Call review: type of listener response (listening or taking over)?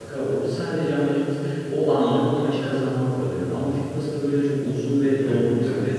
taking over